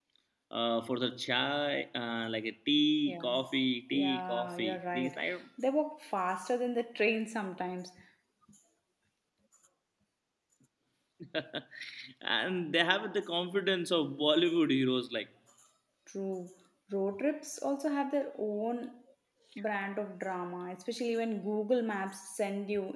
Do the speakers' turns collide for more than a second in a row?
Yes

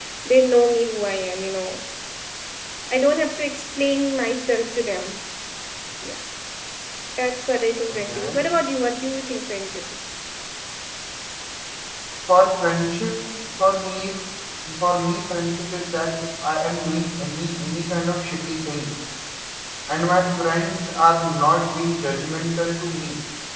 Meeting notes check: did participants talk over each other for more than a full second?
No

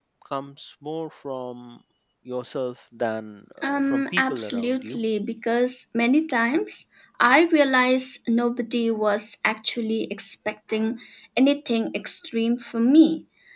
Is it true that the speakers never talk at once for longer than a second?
No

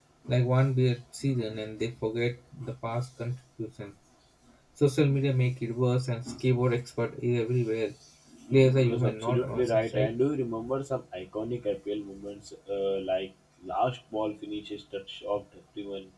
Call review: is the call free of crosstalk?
No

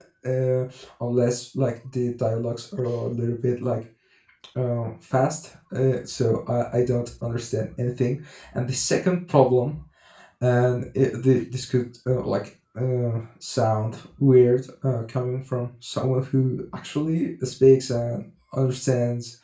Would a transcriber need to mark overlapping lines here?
No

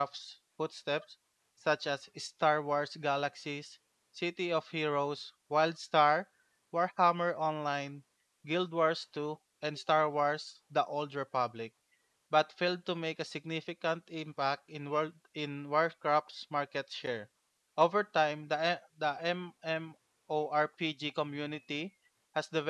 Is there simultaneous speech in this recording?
No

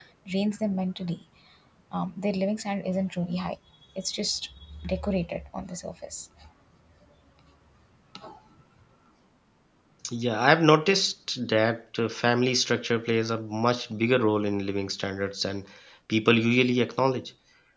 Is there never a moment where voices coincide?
Yes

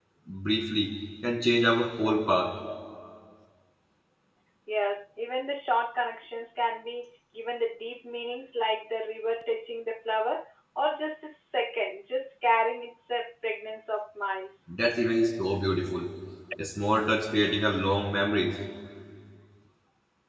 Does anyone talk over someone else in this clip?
No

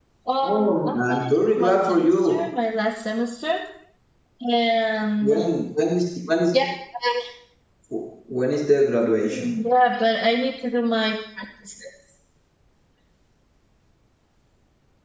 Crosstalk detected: Yes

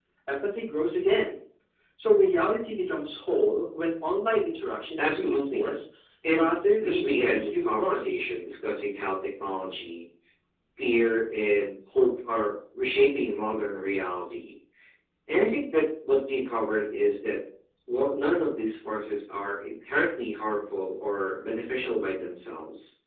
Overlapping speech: Yes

